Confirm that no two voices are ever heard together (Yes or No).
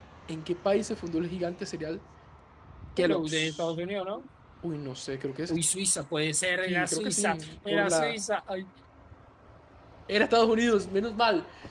No